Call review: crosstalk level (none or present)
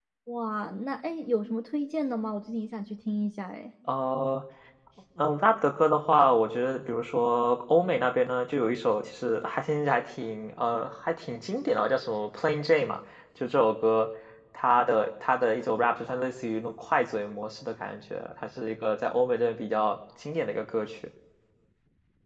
none